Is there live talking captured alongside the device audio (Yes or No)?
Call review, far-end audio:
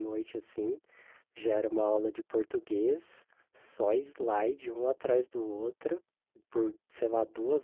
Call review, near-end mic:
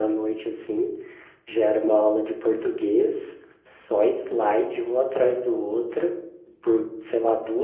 No